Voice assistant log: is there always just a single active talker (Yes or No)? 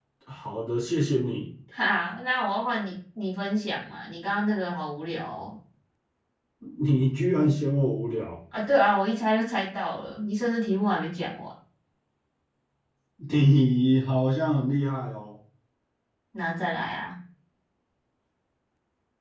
Yes